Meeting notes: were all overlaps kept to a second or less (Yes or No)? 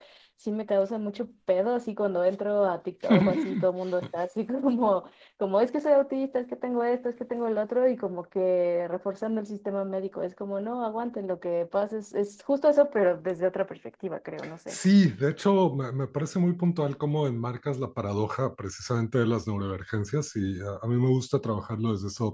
Yes